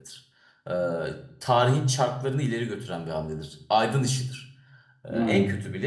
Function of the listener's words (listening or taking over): listening